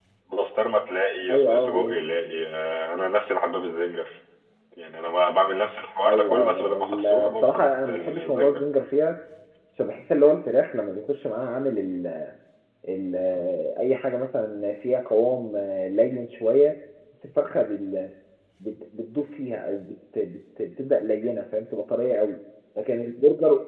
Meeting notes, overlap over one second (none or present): present